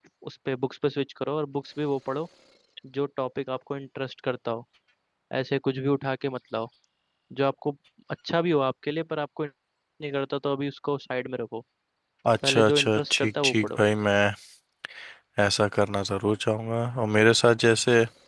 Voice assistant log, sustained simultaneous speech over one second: present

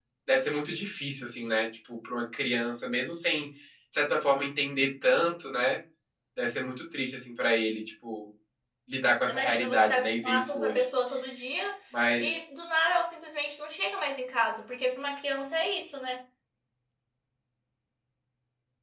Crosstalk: present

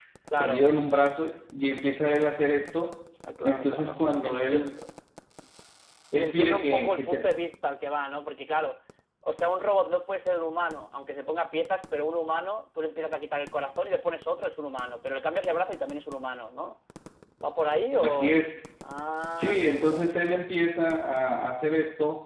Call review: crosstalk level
present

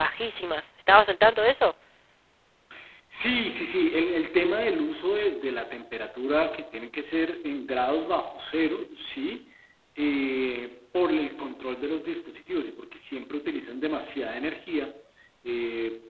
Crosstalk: none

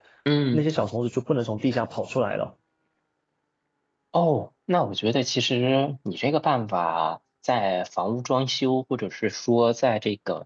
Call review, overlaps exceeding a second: none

